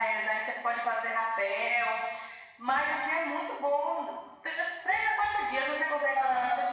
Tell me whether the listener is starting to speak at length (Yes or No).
No